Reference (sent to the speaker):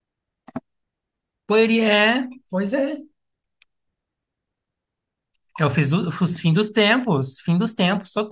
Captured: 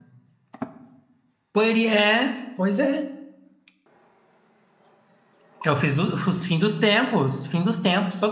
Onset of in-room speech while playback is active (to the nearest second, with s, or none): none